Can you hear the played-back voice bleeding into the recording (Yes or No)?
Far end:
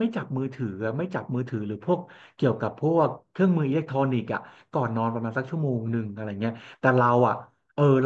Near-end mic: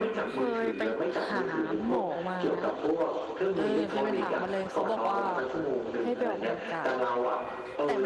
Yes